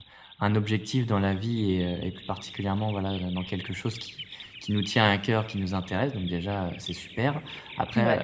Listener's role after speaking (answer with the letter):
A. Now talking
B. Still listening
B